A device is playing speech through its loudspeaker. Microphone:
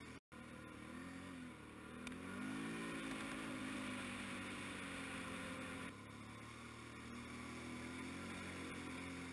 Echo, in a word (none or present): none